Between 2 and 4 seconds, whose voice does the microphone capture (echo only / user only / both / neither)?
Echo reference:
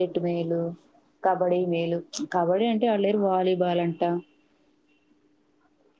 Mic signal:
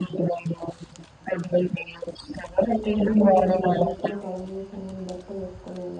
both